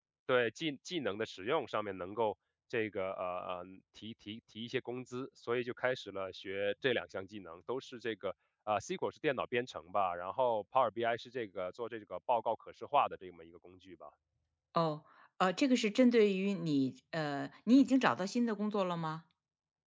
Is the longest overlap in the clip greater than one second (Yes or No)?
No